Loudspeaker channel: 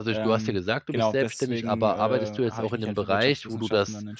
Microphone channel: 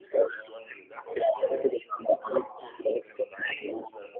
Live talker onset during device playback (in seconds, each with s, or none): none